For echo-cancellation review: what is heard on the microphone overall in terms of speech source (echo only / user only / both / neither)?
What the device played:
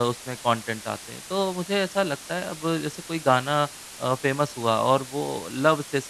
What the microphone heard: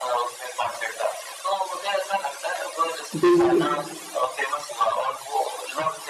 both